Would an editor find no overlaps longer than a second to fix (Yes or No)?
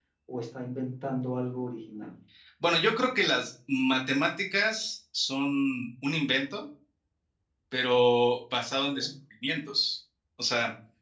Yes